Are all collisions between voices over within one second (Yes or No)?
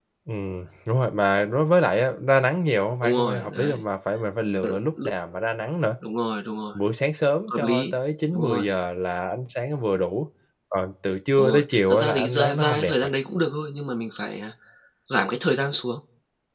No